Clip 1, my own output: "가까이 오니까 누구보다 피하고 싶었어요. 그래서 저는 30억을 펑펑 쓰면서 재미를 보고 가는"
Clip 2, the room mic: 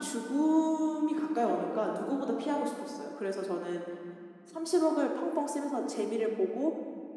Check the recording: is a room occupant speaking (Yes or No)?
No